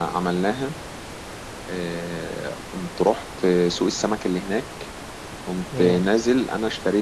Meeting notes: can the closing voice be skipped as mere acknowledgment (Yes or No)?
Yes